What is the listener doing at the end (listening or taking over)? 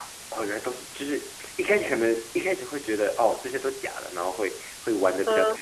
listening